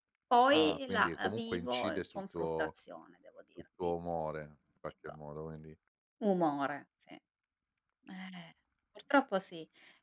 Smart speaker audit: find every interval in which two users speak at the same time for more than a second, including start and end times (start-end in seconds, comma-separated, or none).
0.5-2.7